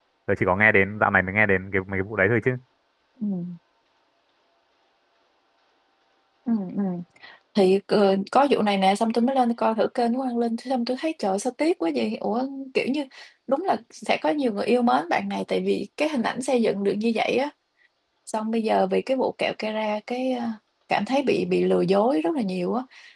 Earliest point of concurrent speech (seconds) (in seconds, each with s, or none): none